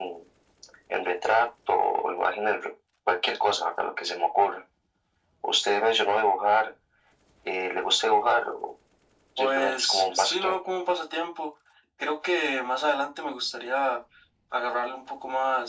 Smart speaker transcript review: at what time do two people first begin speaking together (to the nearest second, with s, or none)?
9 s